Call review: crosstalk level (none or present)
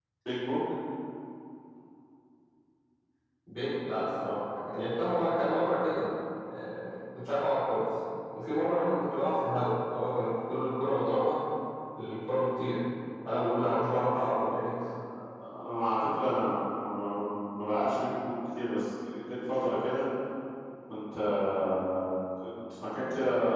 none